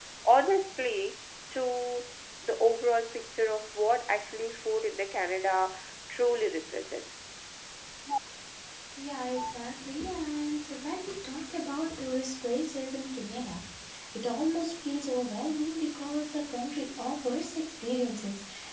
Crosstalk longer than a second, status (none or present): none